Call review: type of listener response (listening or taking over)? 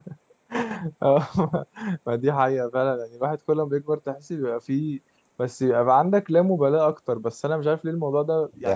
listening